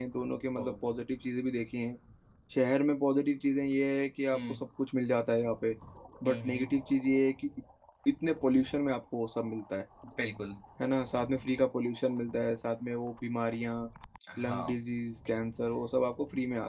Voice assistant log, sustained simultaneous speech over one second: none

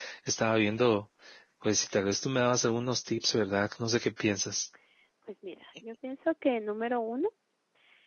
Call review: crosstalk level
none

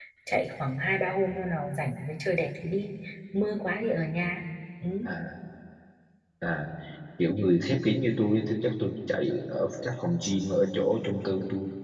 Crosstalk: none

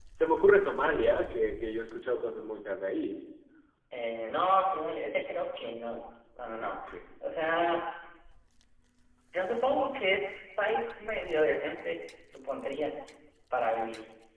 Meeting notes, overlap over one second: none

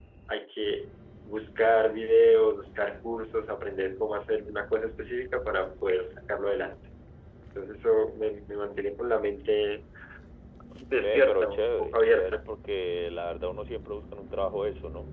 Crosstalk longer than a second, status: present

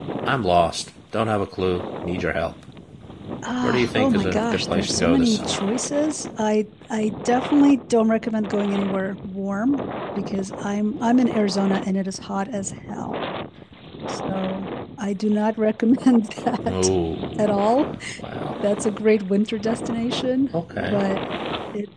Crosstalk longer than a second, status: present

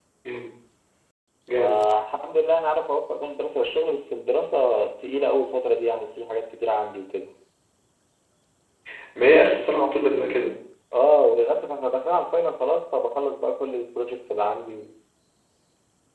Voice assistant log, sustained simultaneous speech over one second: none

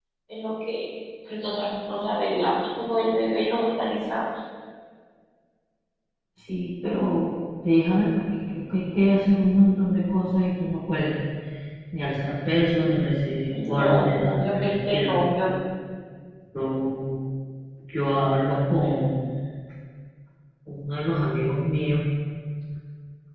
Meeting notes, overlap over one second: present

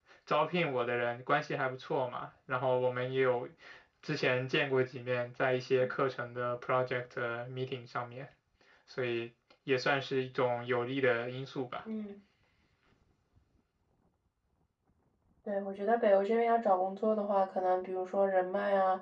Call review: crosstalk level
none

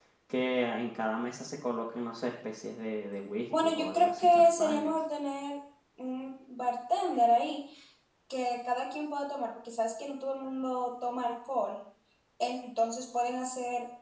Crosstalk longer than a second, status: present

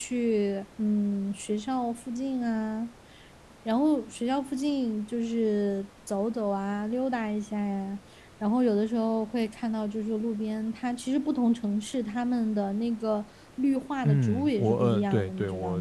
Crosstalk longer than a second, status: present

